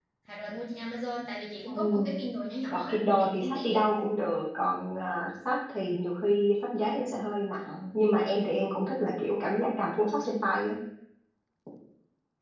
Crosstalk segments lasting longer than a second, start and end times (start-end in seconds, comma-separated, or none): 2.7-3.9